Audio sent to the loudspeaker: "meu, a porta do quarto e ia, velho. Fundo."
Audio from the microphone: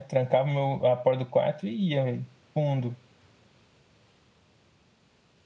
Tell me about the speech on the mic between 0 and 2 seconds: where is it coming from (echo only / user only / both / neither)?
echo only